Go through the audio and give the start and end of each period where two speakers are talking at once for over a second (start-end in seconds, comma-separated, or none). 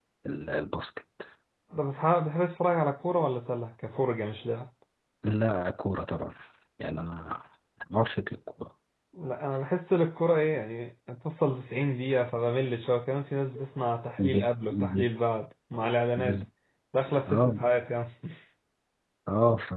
none